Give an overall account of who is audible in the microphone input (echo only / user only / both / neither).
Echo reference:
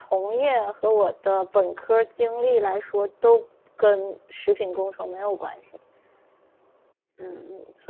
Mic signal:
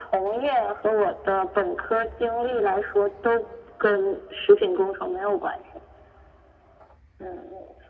echo only